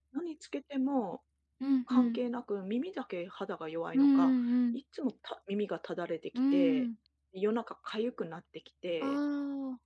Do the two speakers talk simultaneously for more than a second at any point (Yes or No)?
No